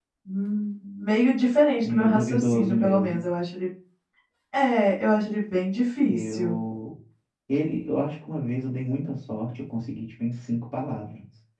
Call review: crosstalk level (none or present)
present